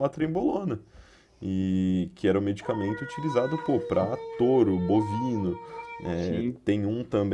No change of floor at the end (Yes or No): Yes